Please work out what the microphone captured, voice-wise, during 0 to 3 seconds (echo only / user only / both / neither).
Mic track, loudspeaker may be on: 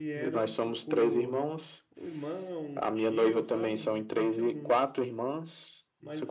both